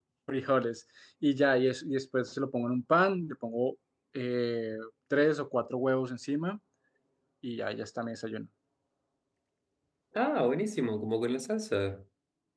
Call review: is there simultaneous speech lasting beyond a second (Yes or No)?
No